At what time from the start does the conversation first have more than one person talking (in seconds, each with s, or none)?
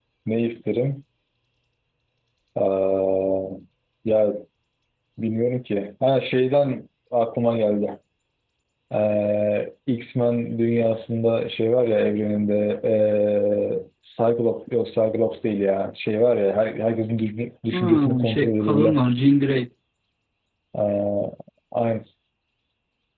17.7 s